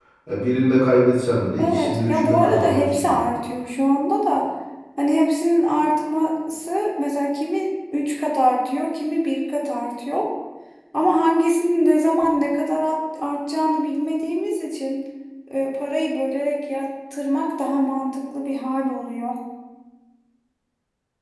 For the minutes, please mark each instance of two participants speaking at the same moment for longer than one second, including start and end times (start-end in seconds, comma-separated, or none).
1.6-3.3